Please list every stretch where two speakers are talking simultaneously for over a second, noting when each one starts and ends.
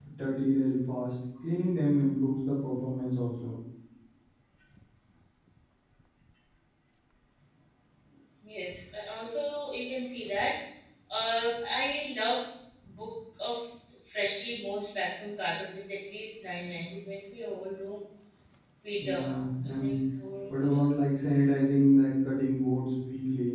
none

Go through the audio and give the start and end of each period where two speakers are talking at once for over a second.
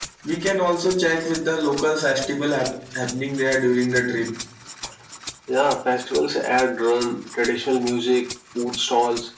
none

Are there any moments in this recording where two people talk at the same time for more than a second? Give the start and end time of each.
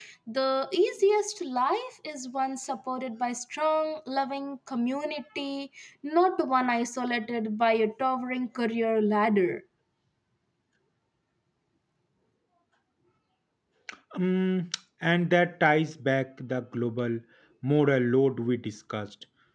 none

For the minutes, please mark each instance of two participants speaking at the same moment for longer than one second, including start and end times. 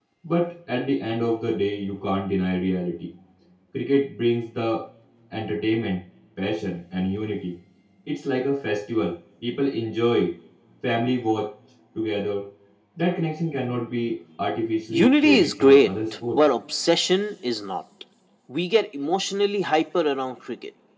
14.9-16.4

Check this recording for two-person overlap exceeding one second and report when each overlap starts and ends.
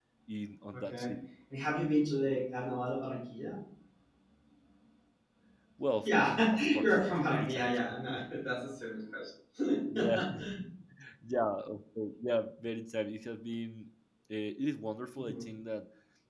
6.0-7.8

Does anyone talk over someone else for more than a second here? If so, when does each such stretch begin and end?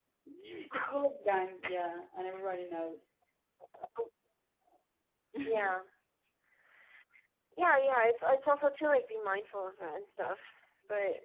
none

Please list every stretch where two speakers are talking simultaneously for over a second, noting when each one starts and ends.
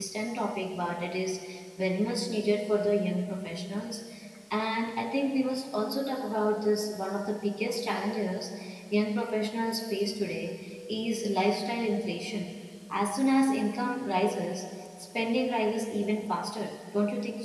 none

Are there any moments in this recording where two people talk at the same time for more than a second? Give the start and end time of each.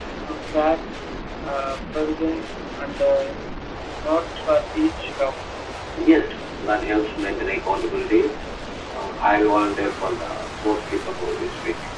none

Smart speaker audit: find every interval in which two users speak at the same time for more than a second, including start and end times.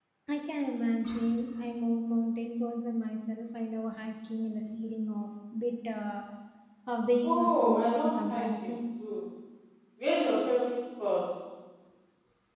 7.2-8.7

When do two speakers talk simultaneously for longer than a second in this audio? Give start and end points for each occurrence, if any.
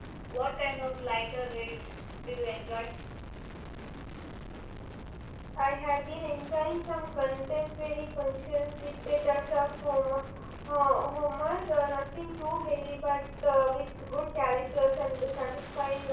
none

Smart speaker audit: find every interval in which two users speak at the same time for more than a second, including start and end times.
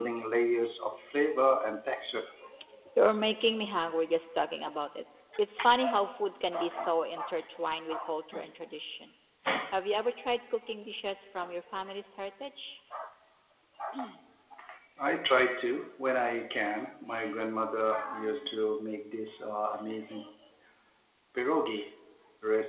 none

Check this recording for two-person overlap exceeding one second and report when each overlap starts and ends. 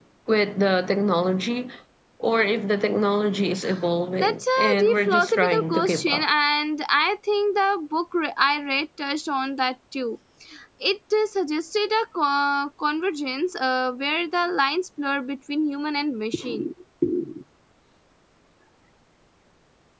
4.2-6.2

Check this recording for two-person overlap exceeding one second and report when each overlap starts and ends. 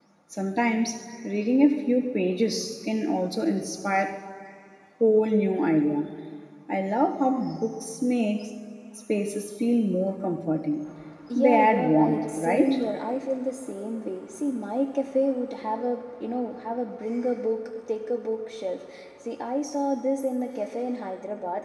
11.3-12.8

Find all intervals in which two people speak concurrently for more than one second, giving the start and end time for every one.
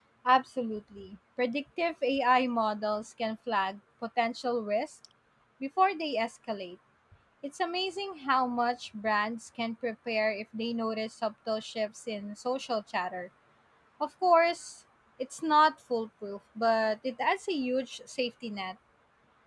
none

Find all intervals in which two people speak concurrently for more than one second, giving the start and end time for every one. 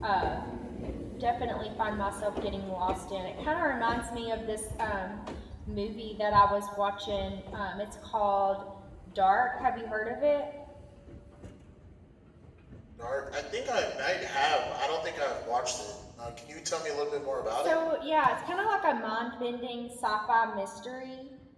none

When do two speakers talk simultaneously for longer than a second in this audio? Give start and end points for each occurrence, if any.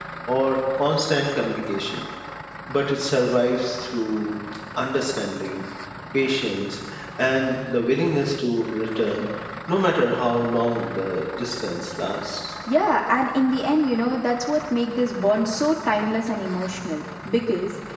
none

